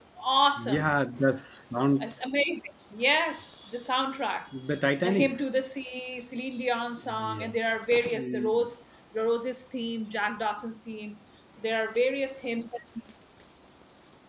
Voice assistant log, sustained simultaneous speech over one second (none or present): none